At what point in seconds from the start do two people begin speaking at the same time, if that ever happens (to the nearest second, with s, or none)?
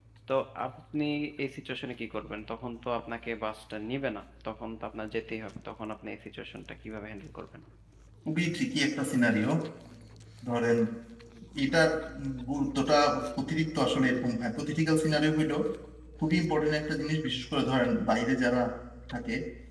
none